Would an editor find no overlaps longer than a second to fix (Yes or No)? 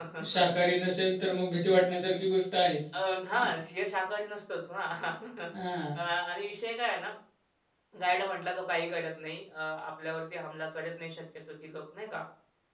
Yes